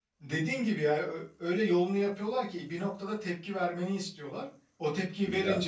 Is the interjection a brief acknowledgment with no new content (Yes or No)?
Yes